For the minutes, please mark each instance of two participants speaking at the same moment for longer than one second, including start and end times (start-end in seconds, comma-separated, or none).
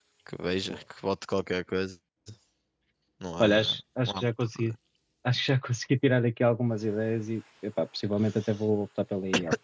3.4-4.8